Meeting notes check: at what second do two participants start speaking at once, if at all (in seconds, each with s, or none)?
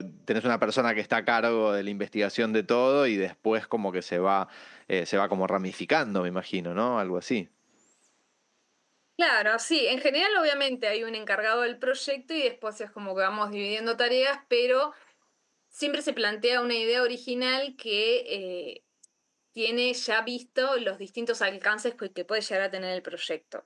none